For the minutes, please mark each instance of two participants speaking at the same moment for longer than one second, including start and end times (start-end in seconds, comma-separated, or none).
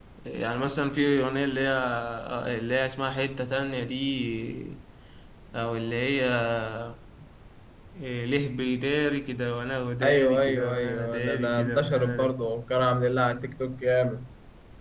10.0-12.2